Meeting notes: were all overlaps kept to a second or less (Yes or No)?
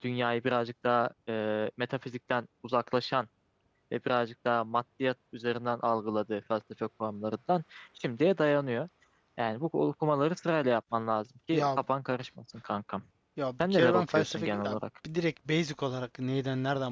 No